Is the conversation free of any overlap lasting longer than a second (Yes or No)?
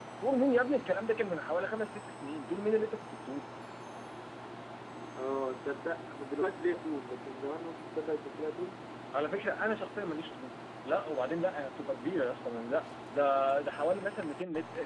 Yes